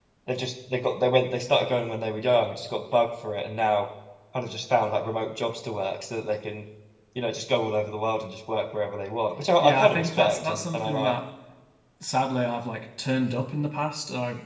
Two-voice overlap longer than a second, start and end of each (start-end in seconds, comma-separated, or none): 9.6-11.1